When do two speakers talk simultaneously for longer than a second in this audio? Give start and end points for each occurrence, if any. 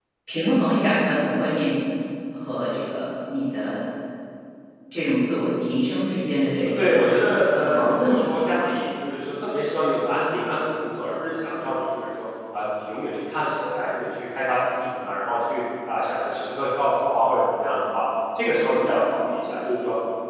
6.7-8.2

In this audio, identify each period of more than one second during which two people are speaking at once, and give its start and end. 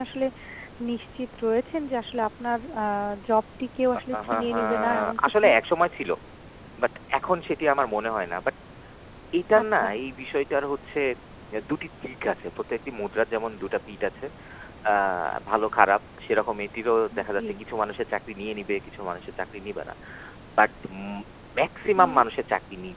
4.1-5.5

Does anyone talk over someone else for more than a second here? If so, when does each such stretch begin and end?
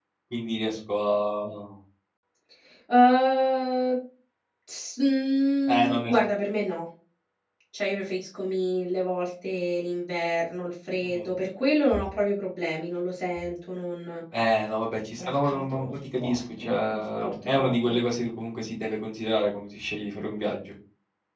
15.2-18.0

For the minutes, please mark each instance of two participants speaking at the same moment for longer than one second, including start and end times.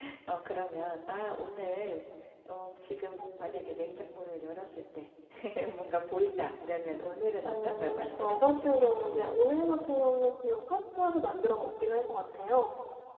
7.4-9.3

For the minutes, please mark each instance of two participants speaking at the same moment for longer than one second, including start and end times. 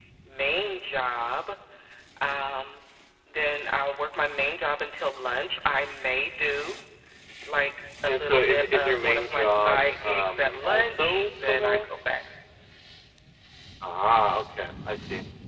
8.1-11.9

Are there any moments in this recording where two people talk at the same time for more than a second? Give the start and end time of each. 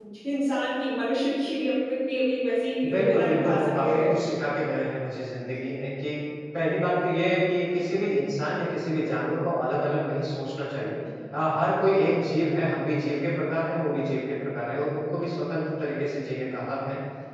2.9-4.1

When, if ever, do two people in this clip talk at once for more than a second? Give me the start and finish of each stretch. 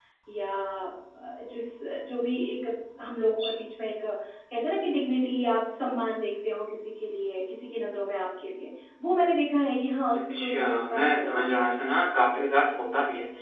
10.4-11.8

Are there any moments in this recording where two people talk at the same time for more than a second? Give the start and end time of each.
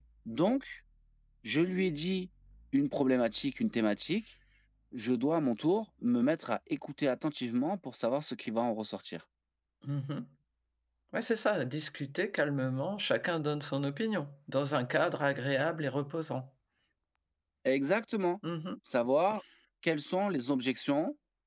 none

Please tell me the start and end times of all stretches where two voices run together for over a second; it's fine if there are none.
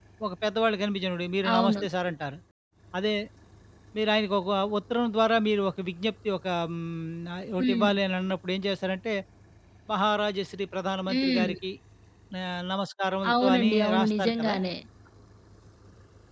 13.3-14.5

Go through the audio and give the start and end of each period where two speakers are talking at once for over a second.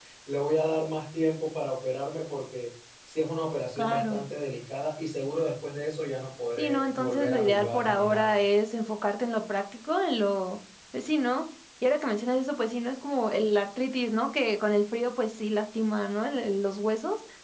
6.6-8.4

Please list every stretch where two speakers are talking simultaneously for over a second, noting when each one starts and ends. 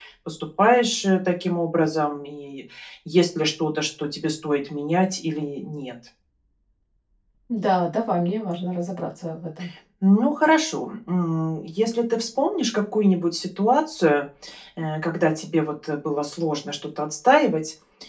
none

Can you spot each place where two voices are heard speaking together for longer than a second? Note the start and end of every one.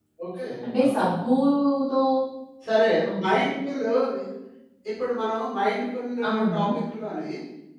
none

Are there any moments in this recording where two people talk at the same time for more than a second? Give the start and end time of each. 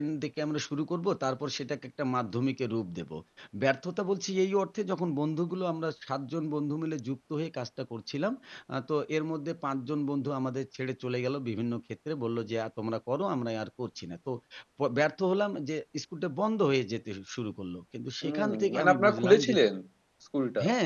18.2-19.5

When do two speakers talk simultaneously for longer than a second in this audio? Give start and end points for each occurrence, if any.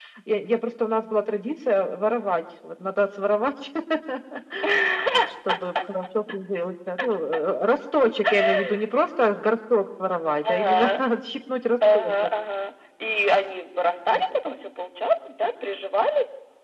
none

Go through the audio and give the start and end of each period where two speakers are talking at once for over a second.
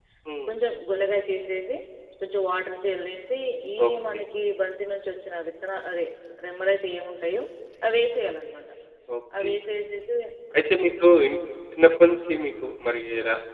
none

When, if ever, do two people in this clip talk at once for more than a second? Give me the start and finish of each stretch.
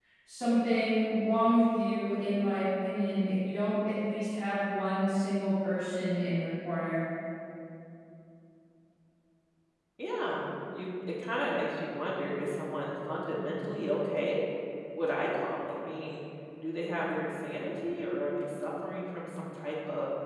none

